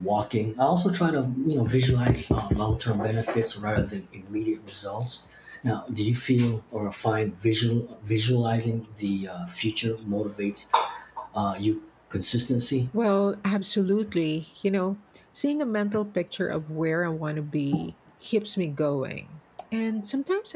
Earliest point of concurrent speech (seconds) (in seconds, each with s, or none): none